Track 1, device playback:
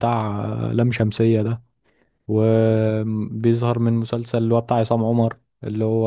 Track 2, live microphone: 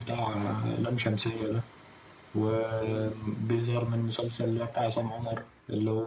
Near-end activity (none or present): present